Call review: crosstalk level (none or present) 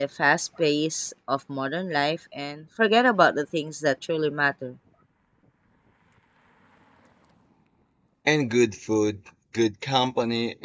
none